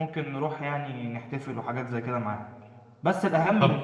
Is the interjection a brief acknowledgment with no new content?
Yes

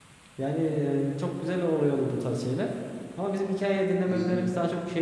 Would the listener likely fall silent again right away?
Yes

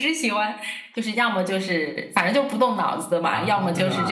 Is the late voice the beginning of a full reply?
No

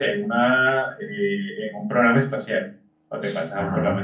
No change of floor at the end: Yes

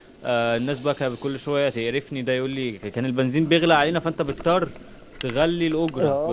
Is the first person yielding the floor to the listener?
Yes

